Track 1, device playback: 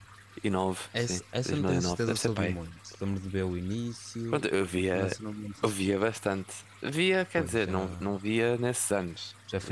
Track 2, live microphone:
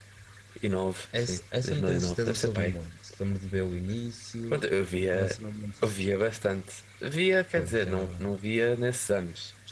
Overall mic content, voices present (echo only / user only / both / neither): echo only